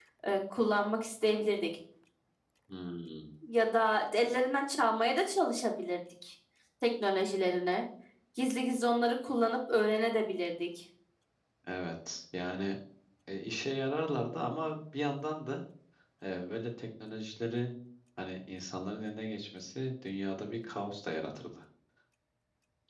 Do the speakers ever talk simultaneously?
No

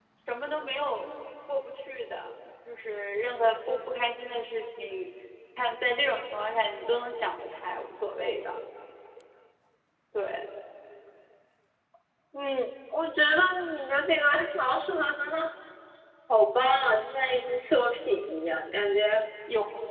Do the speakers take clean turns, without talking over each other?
Yes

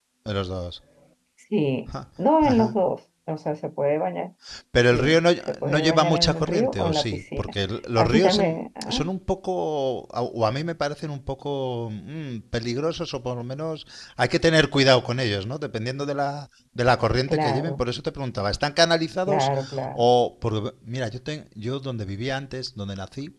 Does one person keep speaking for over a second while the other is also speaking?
Yes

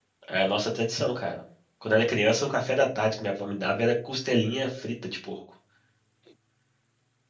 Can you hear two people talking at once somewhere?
No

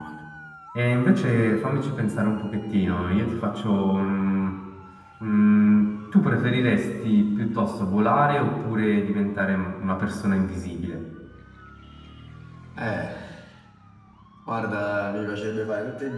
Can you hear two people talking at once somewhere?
No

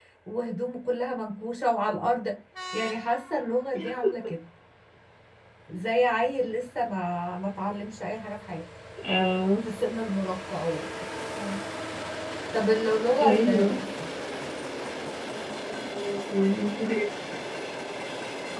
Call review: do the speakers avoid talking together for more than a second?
Yes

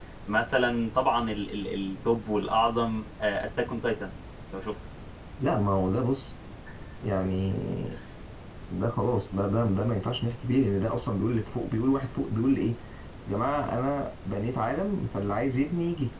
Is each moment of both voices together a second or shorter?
Yes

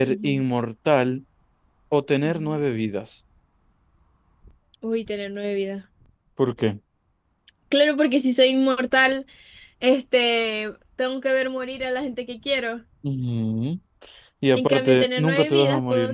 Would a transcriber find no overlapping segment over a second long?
No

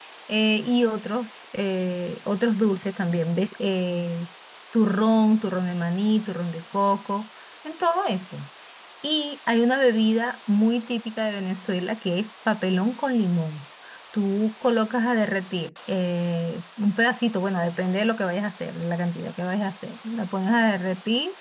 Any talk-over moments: No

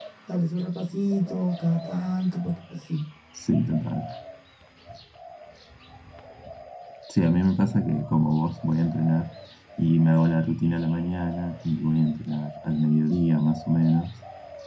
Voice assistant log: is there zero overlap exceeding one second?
Yes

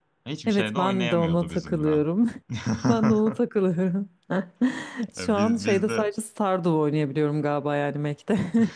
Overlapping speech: Yes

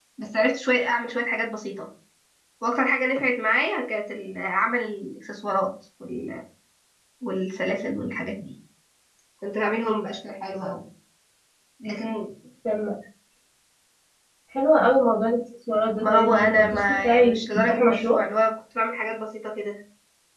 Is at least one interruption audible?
Yes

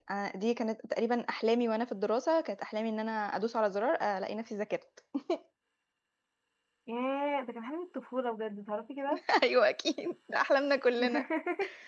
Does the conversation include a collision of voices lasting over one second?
No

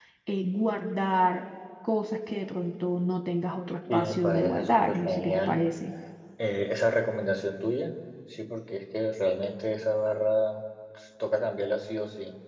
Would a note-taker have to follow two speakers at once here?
Yes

